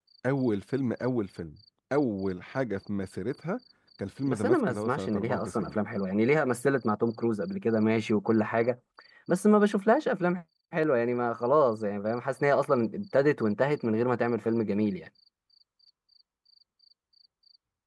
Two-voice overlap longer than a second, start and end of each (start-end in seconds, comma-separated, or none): 4.3-5.8